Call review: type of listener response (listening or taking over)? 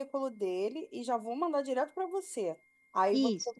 listening